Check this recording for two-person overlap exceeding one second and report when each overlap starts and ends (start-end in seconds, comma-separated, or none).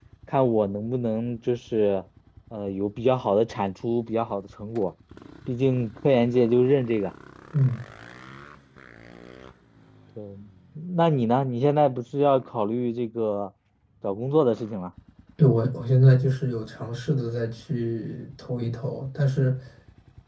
none